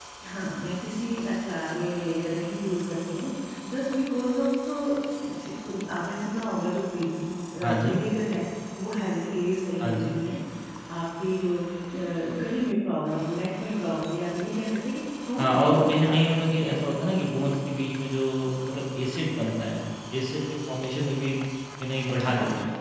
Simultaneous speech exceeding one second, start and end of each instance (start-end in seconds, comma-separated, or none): 15.4-16.6